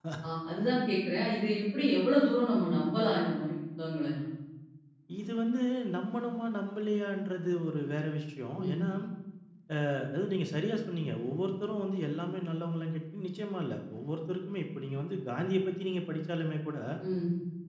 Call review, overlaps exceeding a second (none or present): none